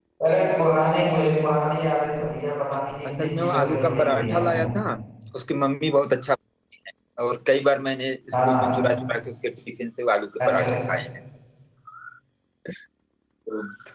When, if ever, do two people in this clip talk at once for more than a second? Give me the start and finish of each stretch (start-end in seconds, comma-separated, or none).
3.1-4.5